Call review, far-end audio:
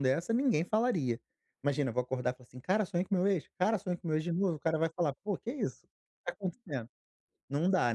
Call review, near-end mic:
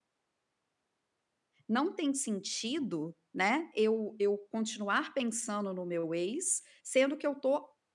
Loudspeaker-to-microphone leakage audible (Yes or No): No